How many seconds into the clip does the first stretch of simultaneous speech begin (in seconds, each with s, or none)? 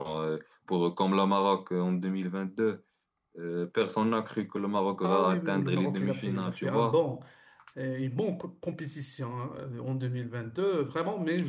5.0 s